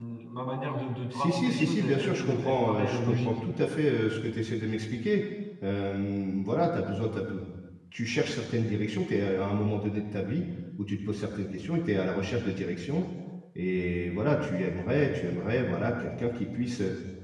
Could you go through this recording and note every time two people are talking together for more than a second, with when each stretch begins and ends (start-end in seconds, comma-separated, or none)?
1.1-3.3